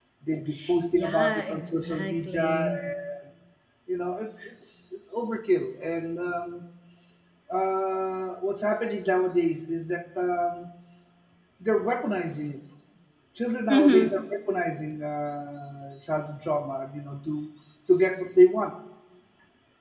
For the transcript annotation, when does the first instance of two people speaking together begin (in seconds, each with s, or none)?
0.9 s